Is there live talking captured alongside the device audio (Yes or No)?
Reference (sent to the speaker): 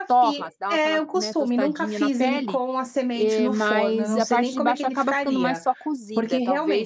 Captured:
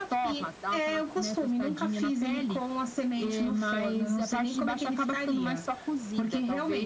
No